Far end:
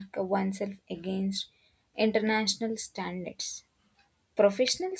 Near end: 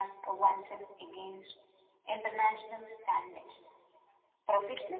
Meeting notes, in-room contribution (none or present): none